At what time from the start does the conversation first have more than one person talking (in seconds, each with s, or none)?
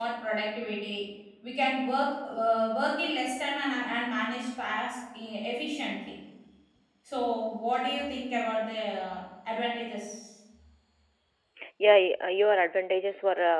none